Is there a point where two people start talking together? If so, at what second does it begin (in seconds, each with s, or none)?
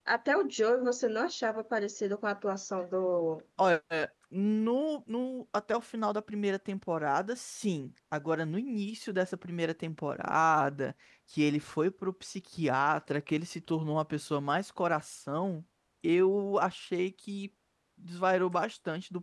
none